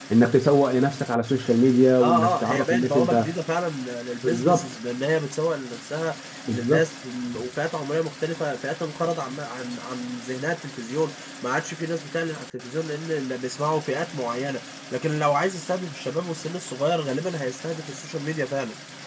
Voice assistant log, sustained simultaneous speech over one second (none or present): present